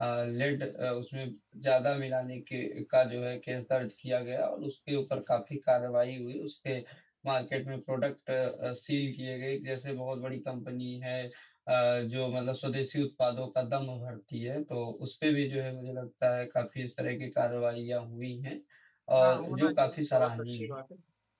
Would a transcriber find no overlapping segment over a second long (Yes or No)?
No